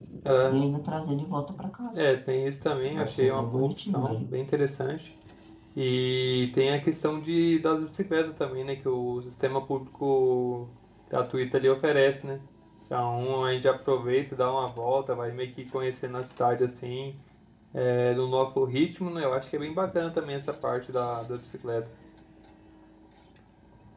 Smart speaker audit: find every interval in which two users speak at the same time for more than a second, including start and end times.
2.9-4.3

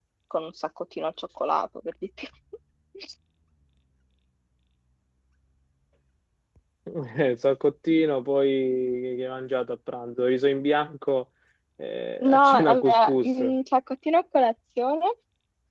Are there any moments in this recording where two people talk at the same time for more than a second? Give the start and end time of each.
12.2-13.5

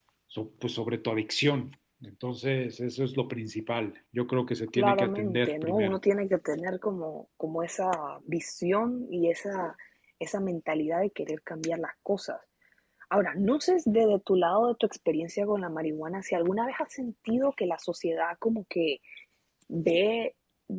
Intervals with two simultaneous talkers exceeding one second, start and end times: 4.7-6.0

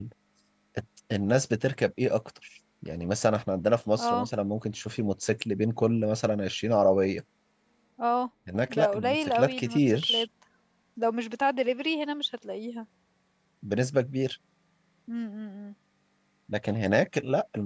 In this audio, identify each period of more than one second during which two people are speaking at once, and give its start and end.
8.7-10.2

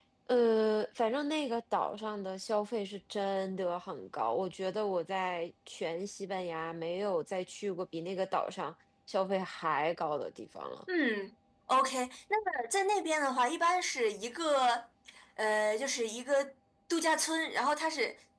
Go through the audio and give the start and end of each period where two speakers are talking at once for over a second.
none

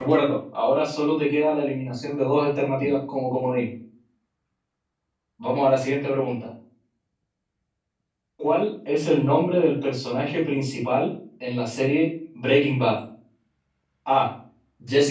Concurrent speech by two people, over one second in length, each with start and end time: none

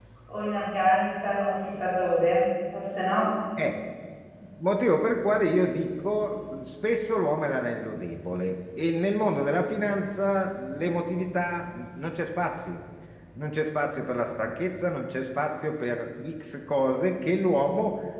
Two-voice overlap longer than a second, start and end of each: none

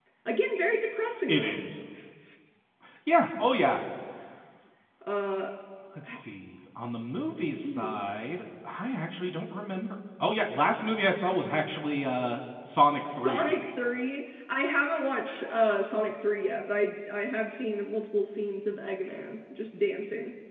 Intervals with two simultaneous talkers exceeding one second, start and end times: none

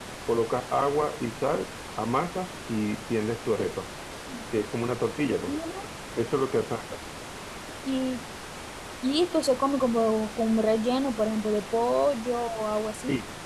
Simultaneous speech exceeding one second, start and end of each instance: none

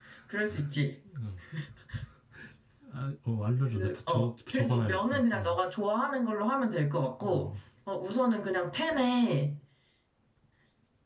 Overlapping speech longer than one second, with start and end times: 3.7-5.6

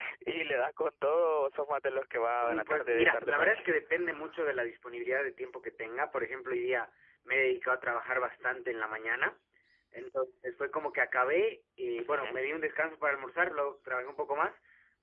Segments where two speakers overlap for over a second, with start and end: 2.4-3.7

